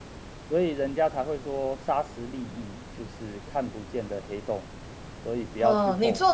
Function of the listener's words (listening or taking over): taking over